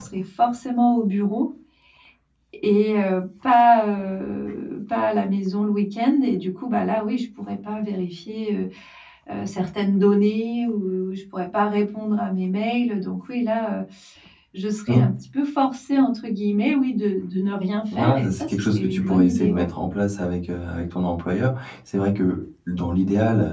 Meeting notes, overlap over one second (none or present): present